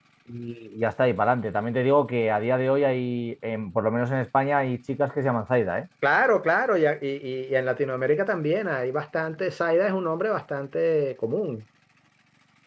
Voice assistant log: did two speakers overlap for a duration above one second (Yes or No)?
No